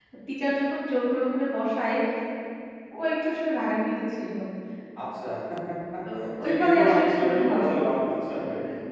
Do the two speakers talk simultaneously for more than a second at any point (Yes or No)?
Yes